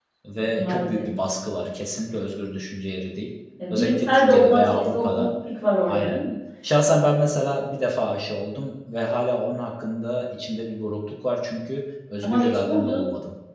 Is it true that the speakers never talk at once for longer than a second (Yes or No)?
No